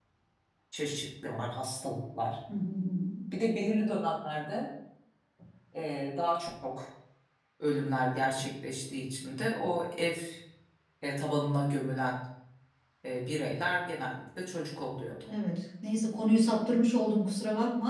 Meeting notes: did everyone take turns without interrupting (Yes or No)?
Yes